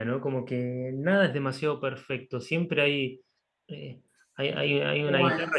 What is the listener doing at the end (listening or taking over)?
listening